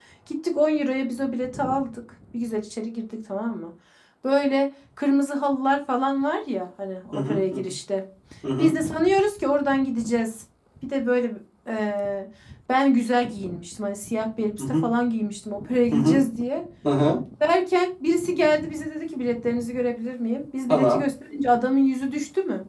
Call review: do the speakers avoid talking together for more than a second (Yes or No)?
Yes